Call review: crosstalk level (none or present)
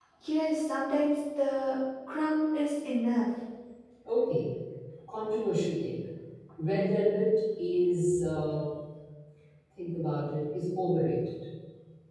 none